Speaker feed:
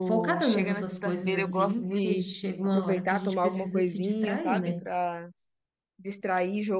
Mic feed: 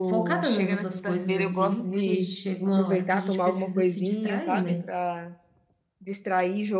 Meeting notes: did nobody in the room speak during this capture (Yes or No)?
Yes